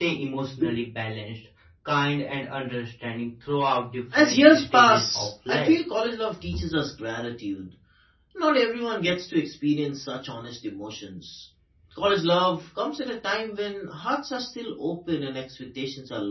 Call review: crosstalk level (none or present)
present